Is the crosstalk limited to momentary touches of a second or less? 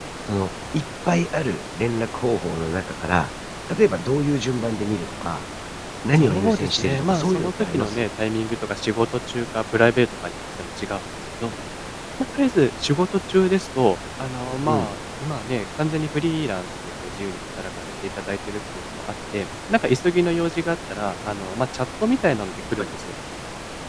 No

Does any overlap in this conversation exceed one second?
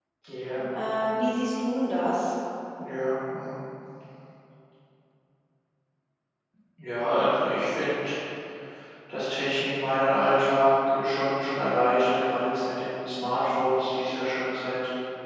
No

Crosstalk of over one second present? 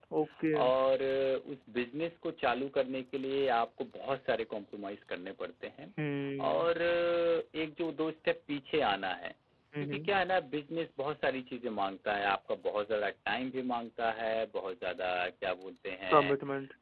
No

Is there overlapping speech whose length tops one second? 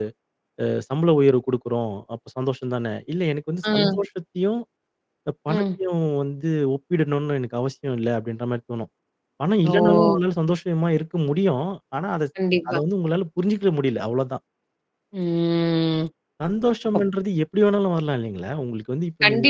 No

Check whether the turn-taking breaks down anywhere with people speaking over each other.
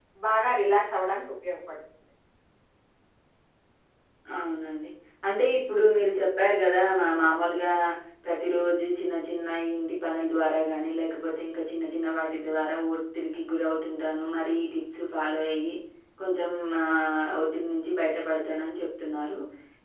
No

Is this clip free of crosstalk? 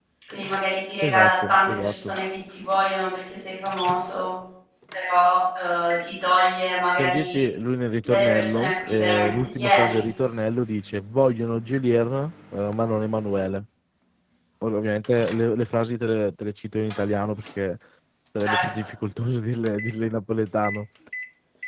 No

